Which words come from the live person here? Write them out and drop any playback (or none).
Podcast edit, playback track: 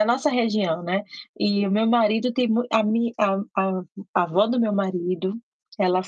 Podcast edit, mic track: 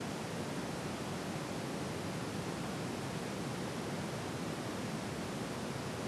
none